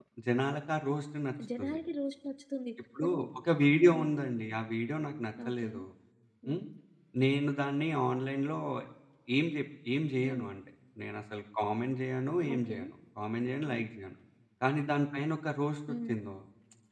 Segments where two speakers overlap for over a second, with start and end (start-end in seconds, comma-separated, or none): none